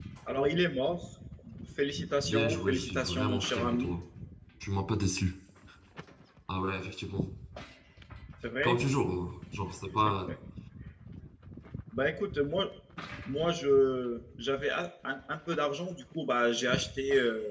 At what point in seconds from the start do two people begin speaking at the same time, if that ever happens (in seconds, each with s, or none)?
2.2 s